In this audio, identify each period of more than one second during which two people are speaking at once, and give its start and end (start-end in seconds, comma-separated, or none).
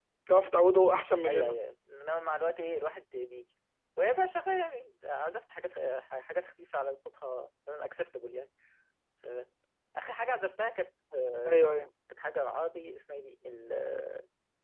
none